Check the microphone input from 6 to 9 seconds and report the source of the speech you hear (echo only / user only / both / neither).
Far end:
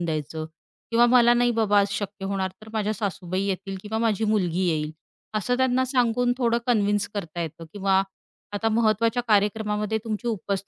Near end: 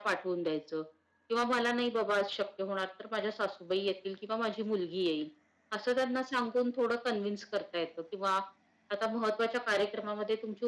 echo only